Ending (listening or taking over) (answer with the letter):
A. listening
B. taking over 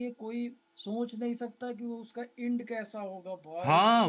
B